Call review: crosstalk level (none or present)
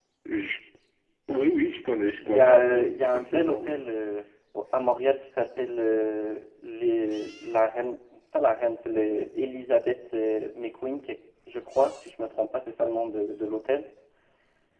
present